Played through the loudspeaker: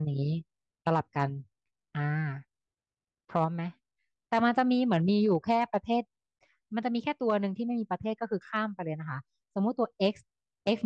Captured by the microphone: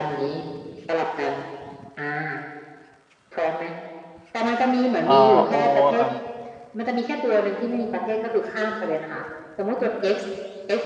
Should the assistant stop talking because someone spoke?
Yes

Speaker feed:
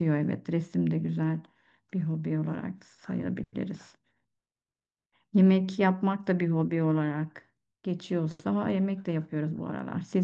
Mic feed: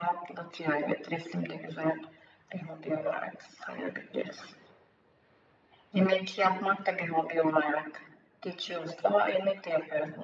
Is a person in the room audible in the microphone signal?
No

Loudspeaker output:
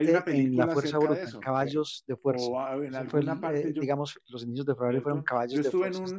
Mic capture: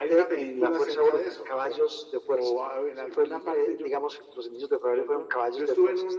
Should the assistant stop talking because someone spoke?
No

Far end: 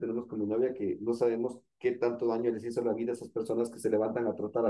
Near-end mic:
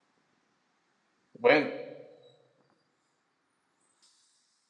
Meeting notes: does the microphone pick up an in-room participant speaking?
Yes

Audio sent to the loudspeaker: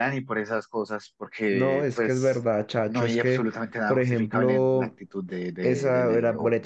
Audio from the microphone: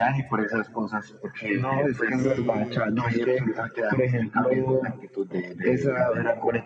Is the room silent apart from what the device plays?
No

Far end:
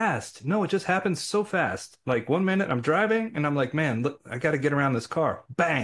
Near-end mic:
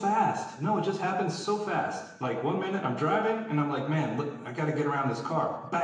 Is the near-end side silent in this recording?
Yes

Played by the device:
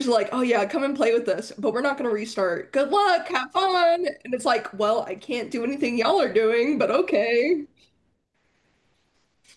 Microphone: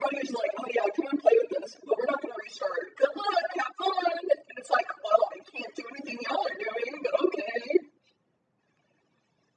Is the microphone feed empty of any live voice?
Yes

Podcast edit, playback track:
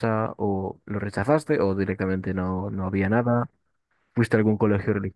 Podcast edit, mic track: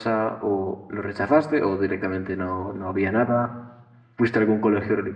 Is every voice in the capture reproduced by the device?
Yes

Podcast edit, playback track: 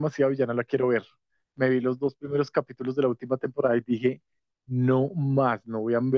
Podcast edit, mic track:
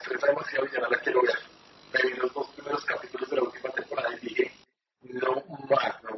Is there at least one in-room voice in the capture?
No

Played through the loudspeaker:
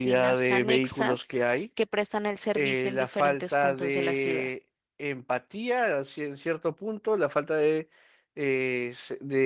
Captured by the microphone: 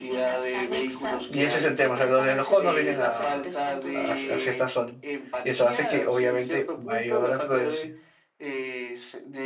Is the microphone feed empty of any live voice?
No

